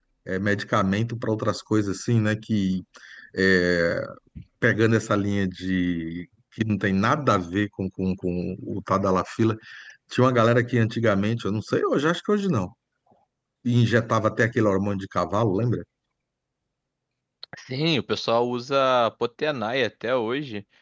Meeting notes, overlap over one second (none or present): none